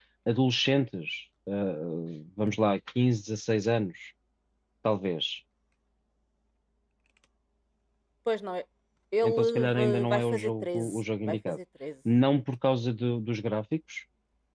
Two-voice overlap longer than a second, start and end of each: 9.2-11.6

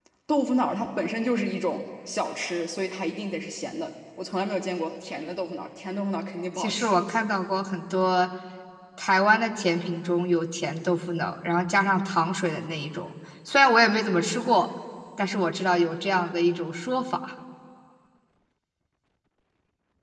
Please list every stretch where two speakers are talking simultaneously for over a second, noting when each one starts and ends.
none

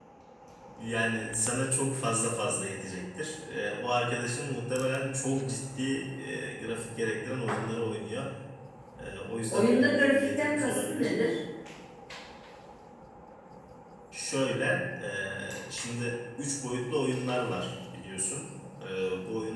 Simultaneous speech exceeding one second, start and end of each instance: 9.5-11.1

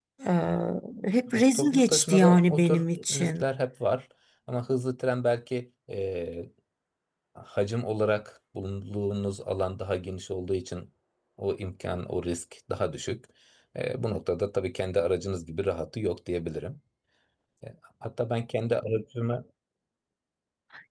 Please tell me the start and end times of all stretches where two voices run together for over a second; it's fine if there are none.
1.4-3.4

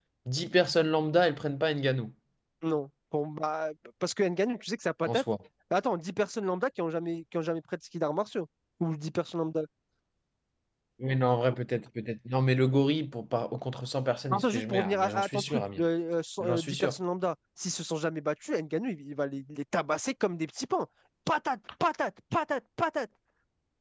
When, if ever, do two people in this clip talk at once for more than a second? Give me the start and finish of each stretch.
14.3-15.8

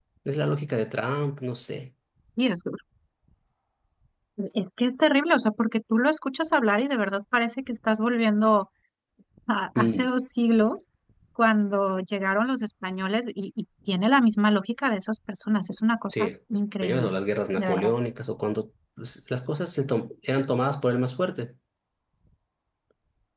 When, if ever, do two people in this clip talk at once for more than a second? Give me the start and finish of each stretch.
none

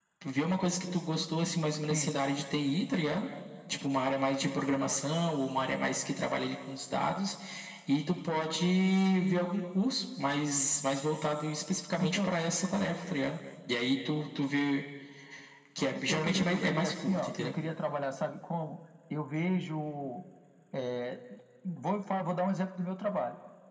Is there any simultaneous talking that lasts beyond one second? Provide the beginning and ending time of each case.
16.1-17.5

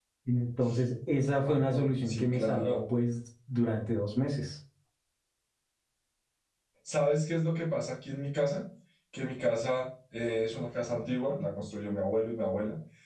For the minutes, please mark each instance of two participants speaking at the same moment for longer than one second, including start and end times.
1.4-2.8

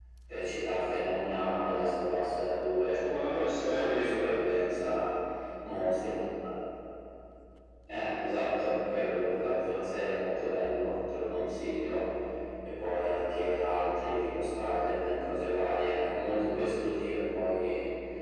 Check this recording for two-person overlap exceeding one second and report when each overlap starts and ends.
2.8-4.3

